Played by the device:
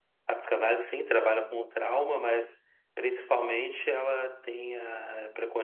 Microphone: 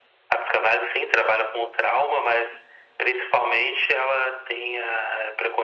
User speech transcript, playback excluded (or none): none